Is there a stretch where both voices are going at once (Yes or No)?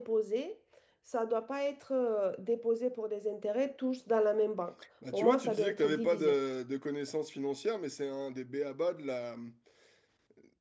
Yes